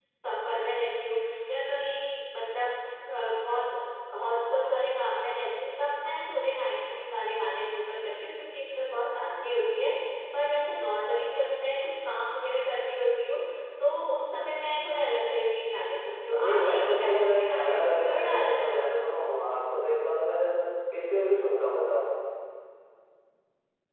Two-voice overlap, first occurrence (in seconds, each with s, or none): 16.4 s